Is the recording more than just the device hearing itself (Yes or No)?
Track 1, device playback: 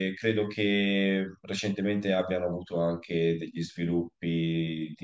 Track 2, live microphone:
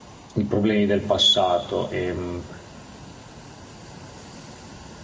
Yes